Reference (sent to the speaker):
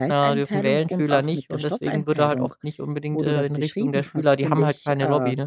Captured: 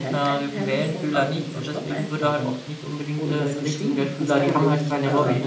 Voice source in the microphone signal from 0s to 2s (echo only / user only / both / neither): echo only